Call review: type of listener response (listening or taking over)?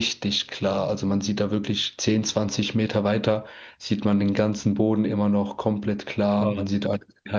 listening